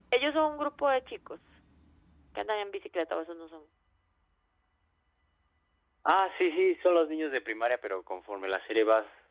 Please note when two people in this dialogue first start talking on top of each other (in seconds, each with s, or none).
none